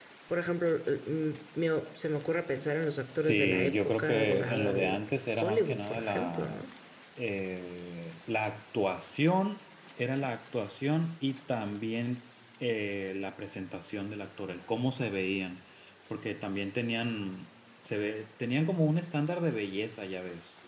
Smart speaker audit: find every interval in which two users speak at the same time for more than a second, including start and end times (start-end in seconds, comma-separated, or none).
3.1-5.0, 5.4-6.6